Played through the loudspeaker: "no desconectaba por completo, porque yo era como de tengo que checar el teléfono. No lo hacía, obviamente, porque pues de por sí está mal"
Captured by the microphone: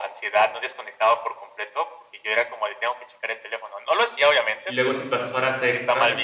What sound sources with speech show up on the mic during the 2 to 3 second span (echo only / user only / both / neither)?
echo only